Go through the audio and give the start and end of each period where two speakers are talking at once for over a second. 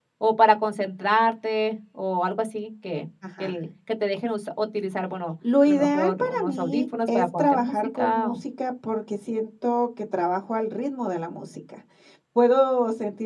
5.7-8.4

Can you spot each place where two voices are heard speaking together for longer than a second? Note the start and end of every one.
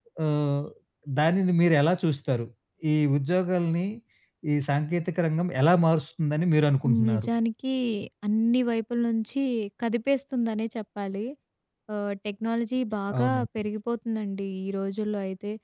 none

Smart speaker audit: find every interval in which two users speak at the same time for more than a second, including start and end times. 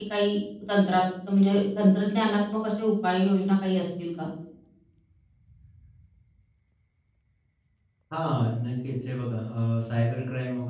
none

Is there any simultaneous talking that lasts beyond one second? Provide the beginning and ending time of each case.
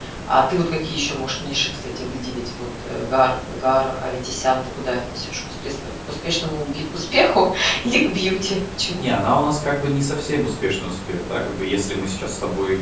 none

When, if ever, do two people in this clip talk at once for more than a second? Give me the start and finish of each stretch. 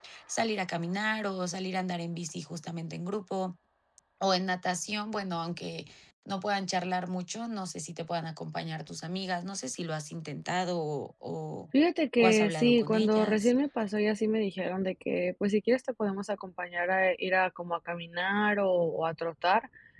12.2-13.5

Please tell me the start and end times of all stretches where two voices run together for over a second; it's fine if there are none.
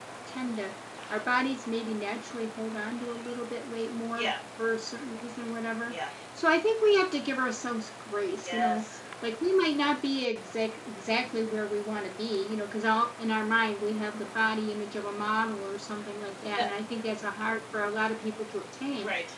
none

